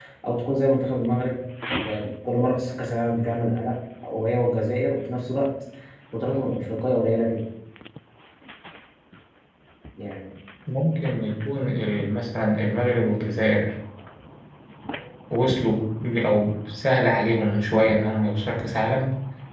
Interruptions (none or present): none